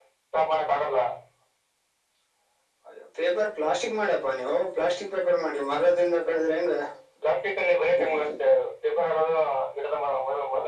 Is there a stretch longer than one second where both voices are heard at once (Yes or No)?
No